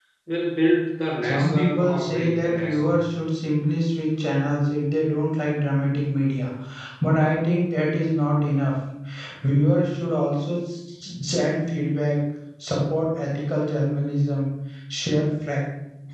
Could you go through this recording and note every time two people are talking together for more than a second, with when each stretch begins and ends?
1.2-3.0

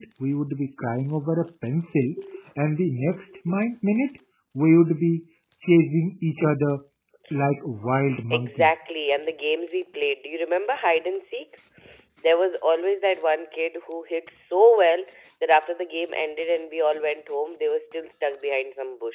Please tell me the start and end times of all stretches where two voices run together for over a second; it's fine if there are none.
none

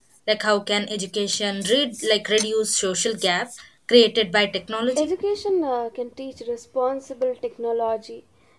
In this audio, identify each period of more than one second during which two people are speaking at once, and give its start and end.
none

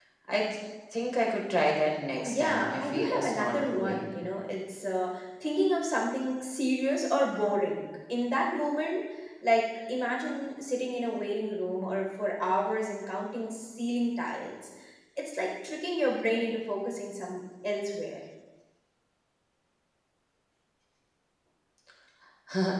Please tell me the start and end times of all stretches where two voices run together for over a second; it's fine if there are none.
2.2-4.1

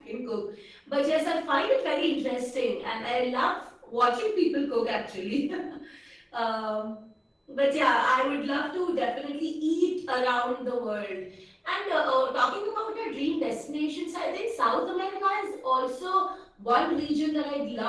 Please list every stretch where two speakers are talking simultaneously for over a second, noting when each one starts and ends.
none

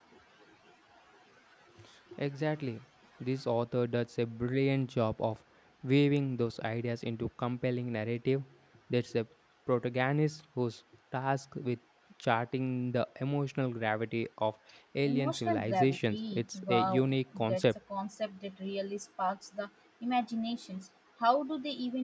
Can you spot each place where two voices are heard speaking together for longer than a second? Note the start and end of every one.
15.0-17.1

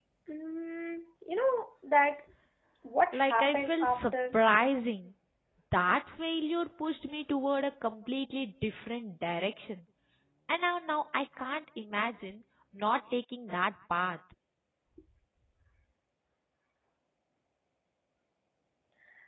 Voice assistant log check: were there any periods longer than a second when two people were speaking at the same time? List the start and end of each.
3.1-4.3

